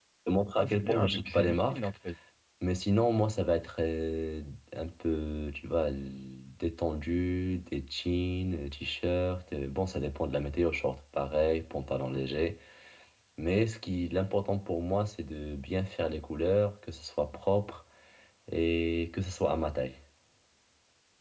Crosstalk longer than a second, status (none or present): present